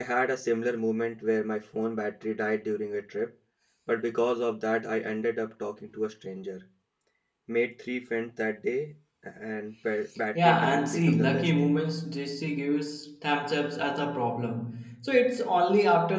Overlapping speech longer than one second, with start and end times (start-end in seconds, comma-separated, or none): 10.4-11.8